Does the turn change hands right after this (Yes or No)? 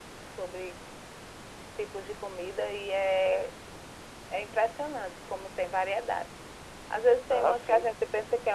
No